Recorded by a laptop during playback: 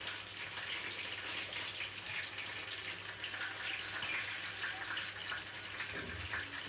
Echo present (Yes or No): No